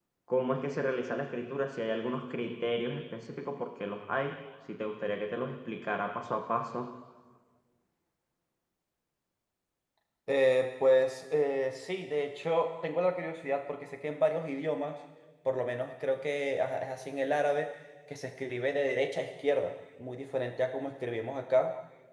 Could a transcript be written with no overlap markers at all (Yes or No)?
Yes